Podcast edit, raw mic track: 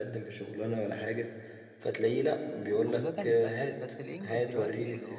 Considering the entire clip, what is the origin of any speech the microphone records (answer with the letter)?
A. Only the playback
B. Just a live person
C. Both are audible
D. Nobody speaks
C